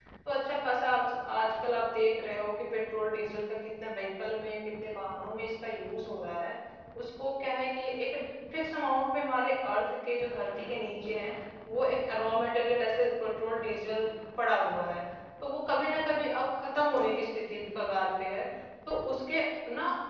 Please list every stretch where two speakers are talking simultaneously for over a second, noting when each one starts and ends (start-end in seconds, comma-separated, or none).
none